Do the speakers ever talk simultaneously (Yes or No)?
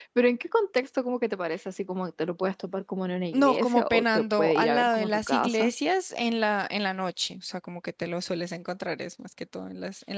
Yes